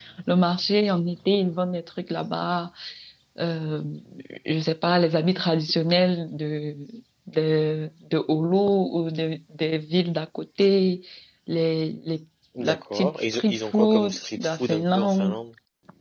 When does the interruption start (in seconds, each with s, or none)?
12.6 s